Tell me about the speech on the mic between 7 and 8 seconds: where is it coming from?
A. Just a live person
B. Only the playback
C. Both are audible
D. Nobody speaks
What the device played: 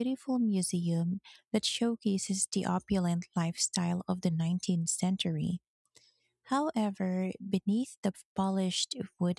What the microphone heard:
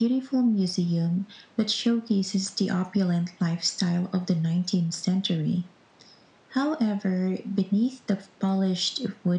B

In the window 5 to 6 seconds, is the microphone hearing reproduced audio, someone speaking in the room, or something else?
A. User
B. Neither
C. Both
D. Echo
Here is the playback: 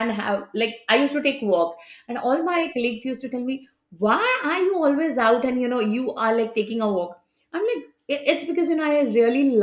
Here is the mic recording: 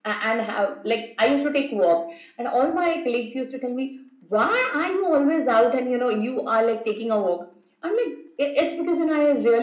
D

